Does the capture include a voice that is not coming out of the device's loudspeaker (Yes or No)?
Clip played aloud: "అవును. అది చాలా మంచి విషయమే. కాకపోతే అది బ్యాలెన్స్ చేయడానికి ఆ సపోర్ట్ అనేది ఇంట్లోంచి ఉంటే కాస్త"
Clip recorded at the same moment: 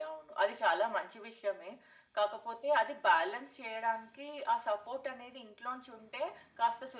No